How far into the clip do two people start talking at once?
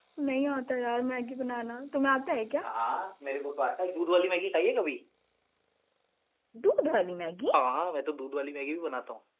none

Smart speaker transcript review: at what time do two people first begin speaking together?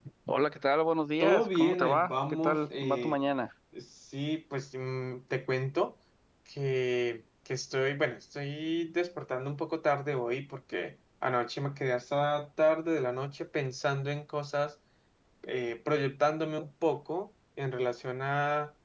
1 s

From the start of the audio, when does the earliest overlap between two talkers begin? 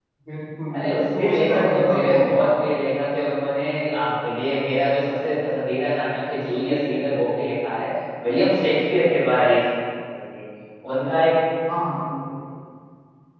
1 s

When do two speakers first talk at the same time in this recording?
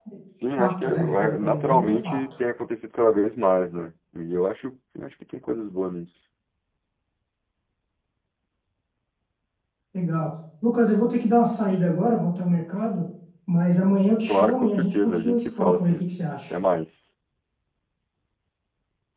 1 s

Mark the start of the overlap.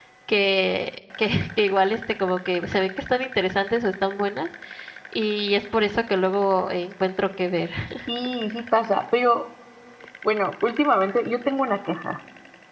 none

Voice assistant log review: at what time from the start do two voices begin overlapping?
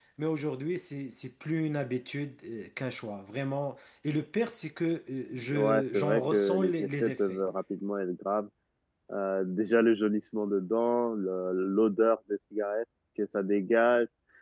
5 s

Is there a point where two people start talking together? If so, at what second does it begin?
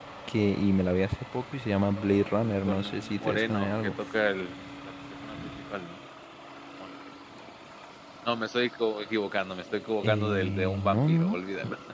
2 s

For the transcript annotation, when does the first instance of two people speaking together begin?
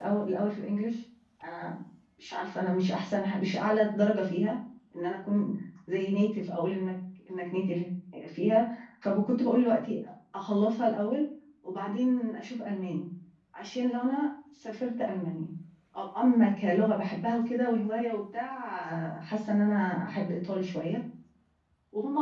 none

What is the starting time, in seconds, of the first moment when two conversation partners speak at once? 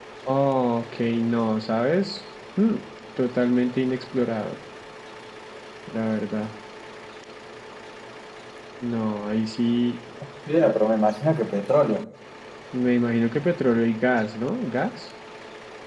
none

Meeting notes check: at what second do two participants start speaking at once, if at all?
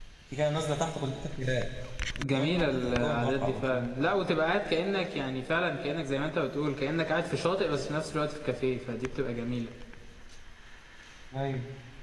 2 s

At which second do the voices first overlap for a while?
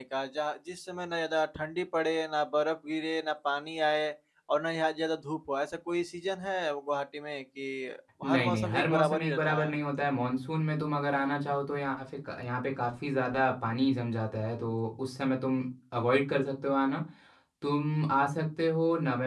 8 s

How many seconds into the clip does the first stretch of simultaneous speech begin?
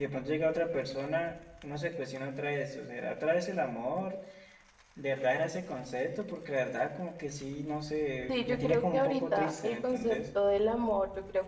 8 s

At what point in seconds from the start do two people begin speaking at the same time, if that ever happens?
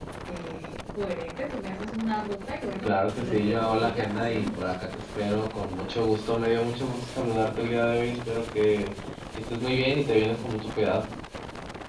3 s

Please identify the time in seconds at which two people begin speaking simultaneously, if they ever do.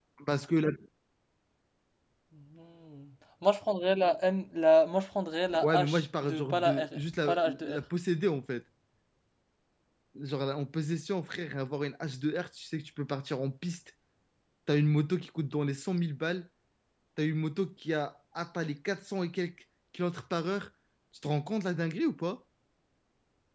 6 s

